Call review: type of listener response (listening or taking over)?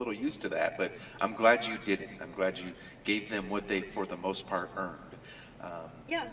taking over